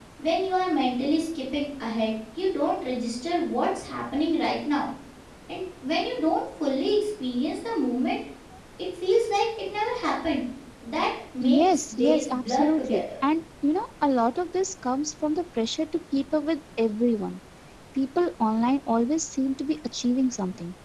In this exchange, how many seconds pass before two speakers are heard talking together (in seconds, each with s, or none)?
11.4 s